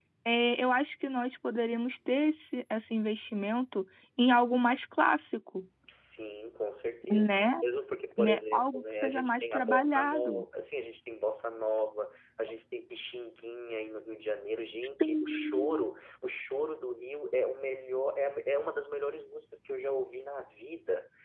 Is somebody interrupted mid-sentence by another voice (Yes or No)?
Yes